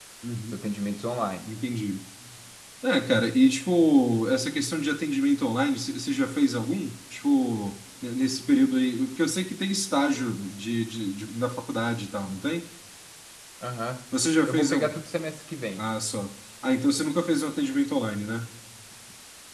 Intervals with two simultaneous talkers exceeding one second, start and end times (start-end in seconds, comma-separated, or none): none